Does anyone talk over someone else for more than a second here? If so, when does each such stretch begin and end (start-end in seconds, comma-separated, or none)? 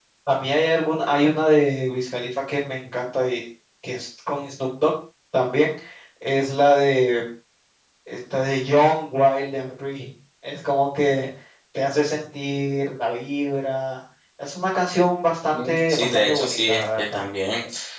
15.5-17.2